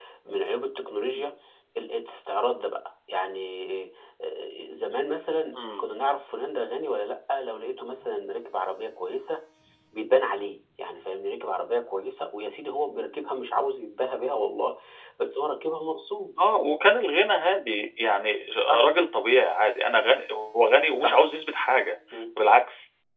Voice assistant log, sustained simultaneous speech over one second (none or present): none